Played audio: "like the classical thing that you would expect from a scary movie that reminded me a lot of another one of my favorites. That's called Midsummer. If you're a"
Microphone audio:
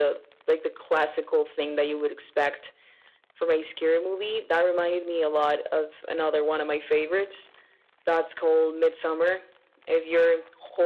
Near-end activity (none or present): none